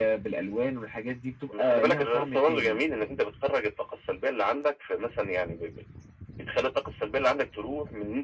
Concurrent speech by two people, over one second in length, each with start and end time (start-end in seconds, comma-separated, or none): 1.6-2.8